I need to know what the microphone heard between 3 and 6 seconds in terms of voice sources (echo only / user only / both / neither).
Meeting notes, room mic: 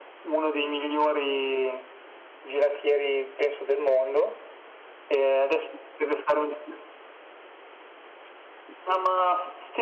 echo only